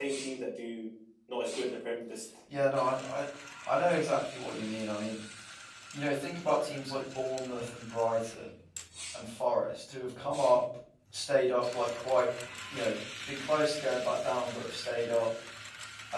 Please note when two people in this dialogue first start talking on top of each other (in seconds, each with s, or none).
none